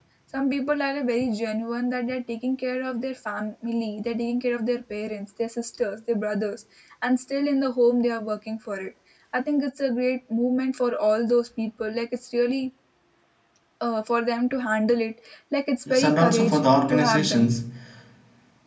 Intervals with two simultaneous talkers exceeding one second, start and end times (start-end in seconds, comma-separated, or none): 15.9-17.5